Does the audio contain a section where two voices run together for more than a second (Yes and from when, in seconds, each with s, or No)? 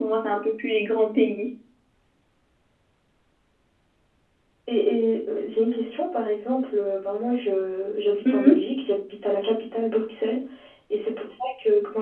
No